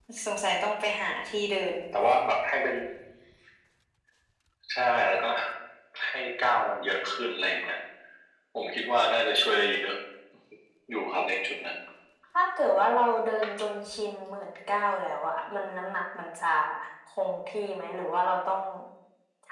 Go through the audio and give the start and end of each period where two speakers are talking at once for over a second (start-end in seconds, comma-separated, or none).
none